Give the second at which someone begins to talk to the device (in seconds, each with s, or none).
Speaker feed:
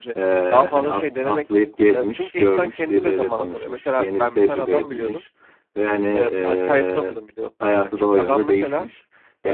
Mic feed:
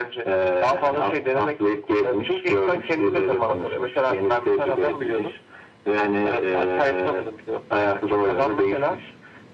none